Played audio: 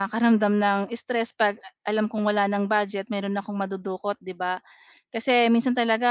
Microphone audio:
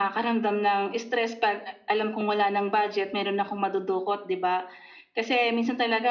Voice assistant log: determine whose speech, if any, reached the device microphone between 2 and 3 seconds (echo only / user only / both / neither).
echo only